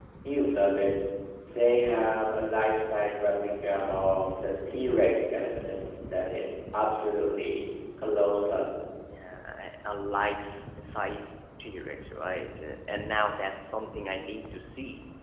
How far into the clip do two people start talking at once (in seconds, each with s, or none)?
none